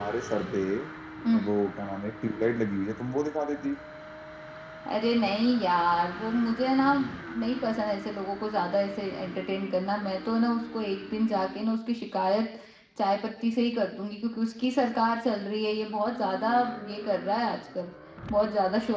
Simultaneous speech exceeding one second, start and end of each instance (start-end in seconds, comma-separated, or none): none